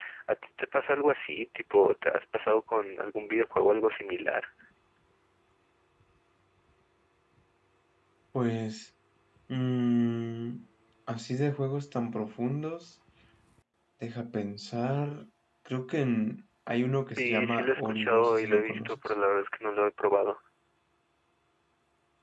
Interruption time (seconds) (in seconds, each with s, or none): 17.2 s